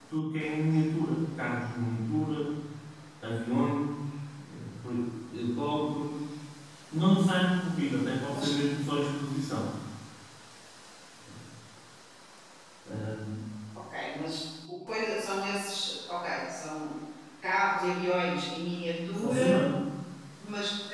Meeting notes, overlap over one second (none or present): none